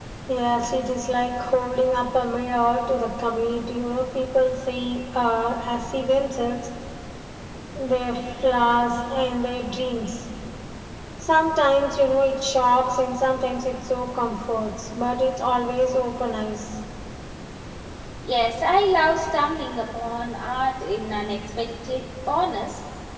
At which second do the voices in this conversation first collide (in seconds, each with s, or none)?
none